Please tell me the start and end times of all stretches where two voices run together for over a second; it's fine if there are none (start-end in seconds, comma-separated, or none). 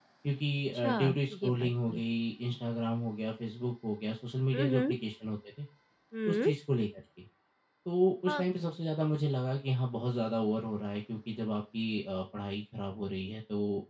0.7-2.0